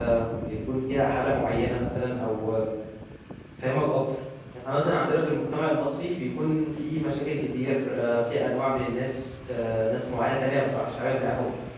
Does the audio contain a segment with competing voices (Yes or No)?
No